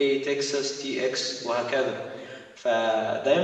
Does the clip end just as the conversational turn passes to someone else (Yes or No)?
No